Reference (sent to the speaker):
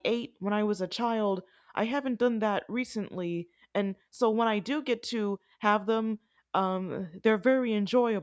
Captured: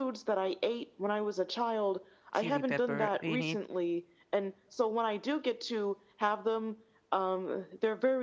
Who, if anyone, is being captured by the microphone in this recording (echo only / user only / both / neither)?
both